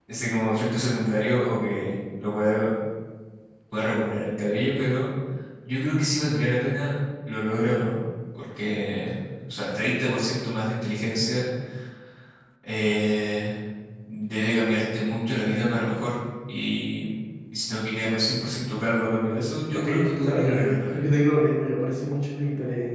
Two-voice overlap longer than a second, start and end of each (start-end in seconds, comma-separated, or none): 19.7-21.0